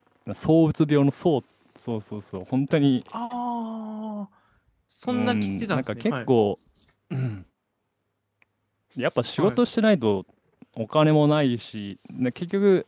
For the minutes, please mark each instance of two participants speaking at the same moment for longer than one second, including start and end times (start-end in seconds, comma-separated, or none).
5.1-6.3